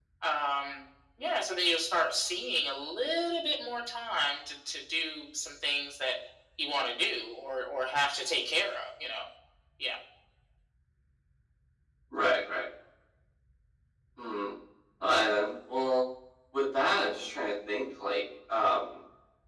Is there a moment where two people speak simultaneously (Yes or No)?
No